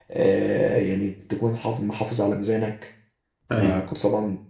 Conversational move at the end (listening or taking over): listening